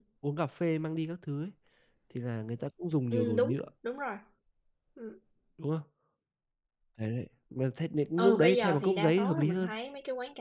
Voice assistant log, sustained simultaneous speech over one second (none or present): present